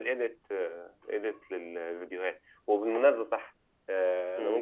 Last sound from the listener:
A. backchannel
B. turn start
A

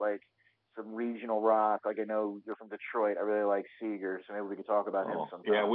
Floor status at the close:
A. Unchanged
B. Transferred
B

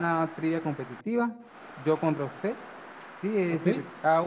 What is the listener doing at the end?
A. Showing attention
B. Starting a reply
A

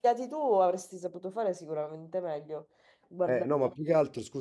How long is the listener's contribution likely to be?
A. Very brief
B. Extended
B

